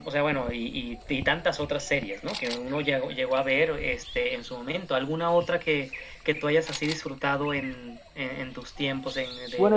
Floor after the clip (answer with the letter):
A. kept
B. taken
B